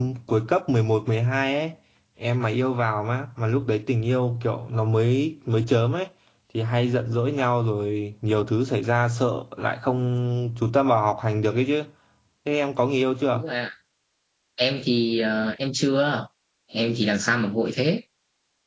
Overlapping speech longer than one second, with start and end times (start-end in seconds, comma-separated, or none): none